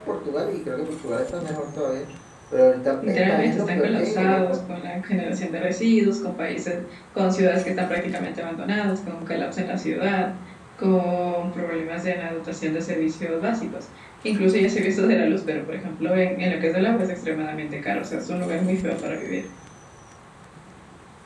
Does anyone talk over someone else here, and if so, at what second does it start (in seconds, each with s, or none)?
3.0 s